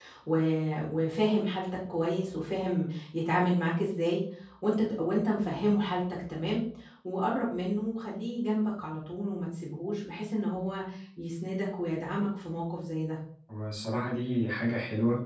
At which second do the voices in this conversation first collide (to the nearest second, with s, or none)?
none